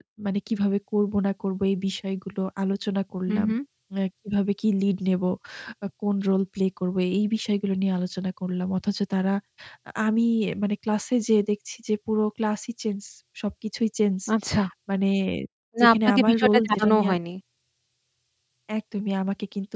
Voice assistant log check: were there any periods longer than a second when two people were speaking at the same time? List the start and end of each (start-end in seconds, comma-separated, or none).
15.8-17.2